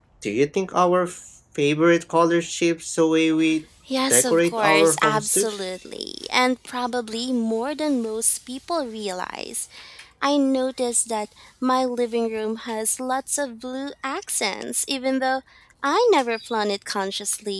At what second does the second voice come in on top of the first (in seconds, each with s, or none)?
4.1 s